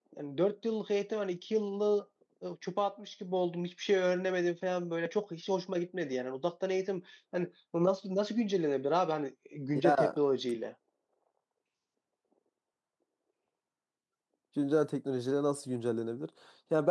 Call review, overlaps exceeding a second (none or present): none